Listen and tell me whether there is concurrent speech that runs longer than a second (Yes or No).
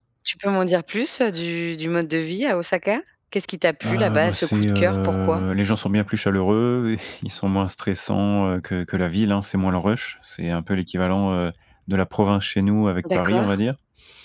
Yes